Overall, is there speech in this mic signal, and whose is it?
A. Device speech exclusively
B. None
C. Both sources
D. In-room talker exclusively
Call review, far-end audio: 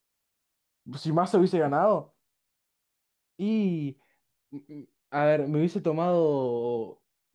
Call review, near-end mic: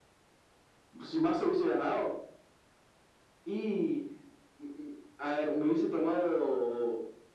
A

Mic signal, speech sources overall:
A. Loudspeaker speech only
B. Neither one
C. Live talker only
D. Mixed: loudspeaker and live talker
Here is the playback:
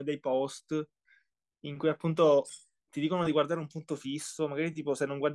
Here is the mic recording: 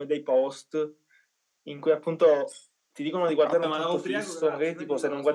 D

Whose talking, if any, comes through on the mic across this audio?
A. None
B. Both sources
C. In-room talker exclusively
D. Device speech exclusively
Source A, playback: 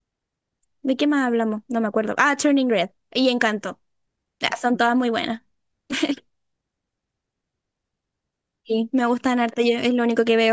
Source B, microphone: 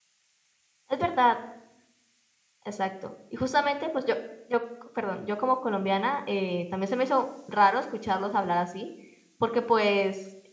C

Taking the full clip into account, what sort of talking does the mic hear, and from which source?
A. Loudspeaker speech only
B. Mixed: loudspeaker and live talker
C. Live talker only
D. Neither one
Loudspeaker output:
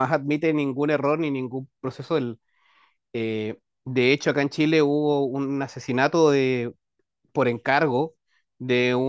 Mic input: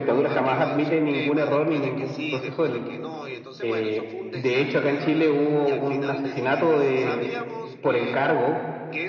B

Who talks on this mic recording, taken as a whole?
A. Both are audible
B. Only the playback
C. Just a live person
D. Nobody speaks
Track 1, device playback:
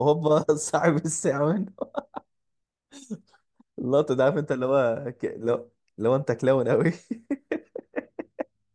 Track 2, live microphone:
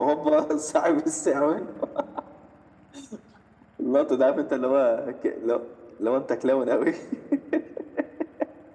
B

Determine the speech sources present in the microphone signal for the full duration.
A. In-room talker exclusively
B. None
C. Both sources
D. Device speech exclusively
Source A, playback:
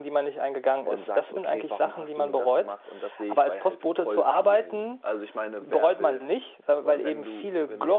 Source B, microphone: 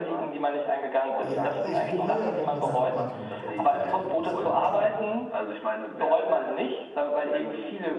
C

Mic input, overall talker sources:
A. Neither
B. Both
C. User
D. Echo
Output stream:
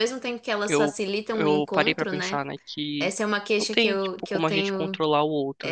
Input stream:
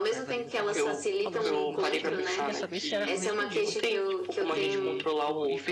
B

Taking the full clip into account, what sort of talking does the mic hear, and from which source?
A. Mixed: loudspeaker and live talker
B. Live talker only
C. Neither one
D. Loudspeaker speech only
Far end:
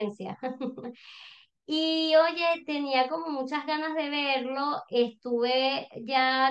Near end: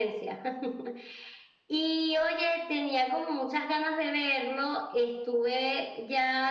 D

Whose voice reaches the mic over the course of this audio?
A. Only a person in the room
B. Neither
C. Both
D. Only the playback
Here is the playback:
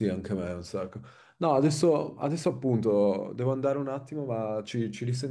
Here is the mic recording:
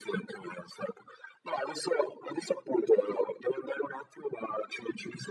D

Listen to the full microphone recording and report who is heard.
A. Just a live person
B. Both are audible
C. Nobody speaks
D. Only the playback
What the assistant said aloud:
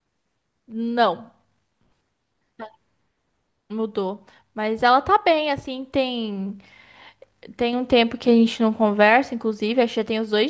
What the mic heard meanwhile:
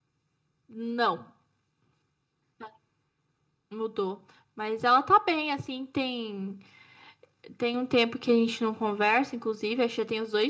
D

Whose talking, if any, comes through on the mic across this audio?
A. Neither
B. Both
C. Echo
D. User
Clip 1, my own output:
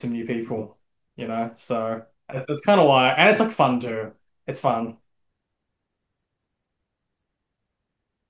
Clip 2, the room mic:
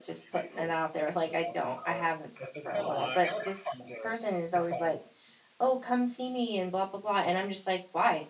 B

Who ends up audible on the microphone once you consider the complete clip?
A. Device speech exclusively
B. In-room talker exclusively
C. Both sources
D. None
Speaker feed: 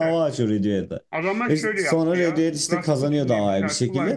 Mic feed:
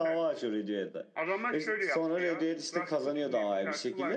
A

